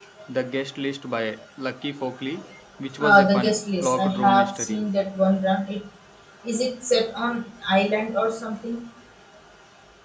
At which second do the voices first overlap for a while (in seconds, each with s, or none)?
3.0 s